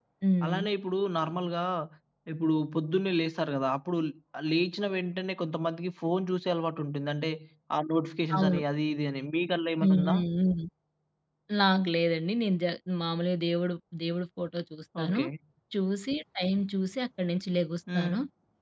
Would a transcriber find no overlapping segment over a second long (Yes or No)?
Yes